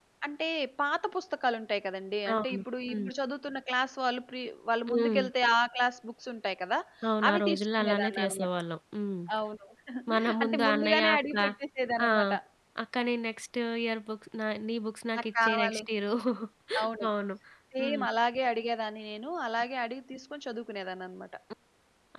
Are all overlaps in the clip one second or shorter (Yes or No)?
No